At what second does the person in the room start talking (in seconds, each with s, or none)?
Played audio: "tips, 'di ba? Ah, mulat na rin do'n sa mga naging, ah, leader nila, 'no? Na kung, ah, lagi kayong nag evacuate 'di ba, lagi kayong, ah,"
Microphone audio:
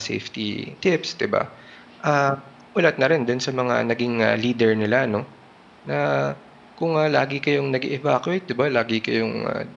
none